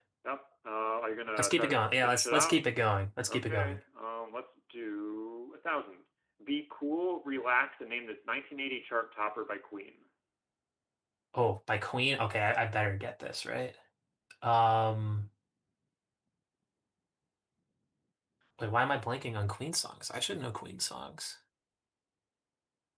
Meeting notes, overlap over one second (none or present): present